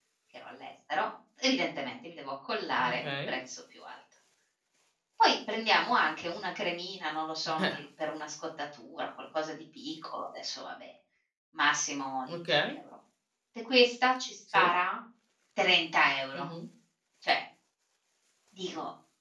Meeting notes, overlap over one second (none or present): none